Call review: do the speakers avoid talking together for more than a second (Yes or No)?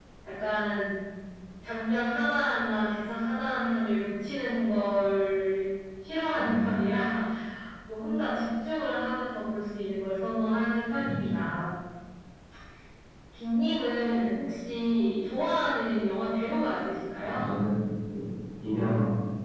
Yes